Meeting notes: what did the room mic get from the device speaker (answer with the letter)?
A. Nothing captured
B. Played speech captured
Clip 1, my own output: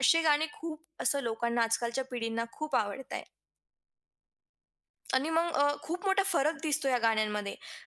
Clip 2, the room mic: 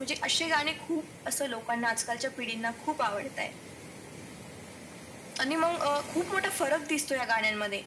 B